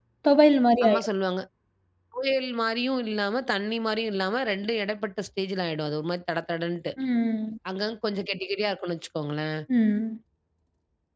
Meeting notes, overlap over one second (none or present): none